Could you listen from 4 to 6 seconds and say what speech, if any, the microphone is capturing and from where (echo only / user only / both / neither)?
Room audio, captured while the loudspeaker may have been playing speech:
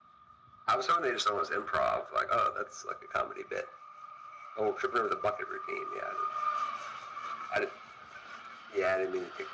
echo only